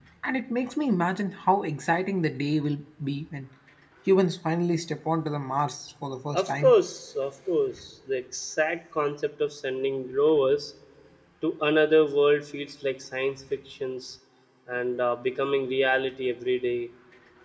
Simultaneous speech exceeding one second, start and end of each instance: none

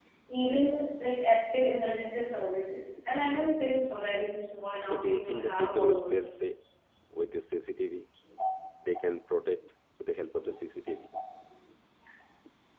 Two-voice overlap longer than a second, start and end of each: 4.8-6.6

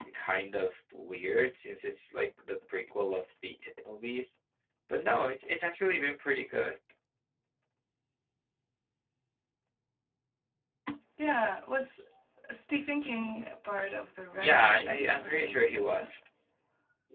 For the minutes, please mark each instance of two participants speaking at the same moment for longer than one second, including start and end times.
14.4-16.1

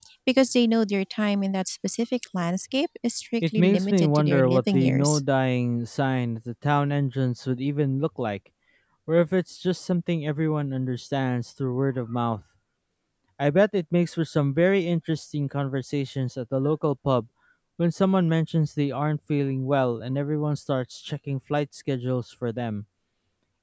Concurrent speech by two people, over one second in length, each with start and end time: 3.4-5.2

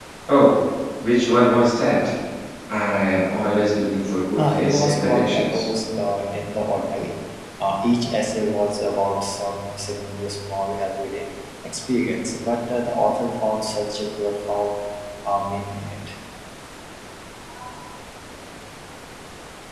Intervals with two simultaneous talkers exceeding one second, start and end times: 4.4-5.6

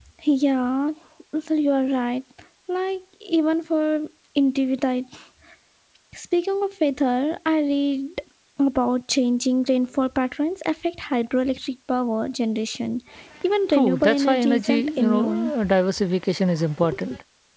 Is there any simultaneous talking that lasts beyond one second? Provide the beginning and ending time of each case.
13.7-15.5

